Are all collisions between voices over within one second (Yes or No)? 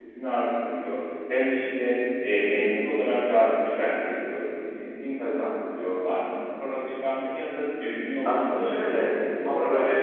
No